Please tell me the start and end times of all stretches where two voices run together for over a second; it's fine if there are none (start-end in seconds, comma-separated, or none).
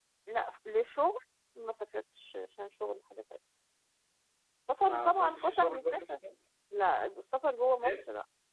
4.9-6.2